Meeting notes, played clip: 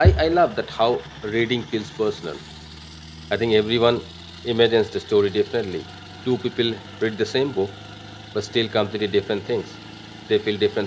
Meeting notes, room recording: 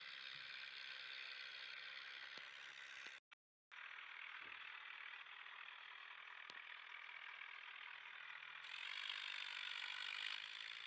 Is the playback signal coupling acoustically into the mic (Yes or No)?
No